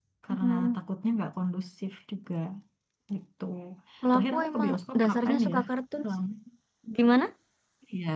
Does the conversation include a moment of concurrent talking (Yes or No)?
Yes